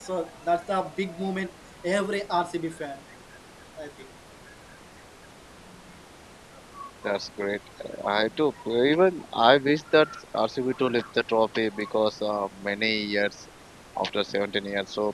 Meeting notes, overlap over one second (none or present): none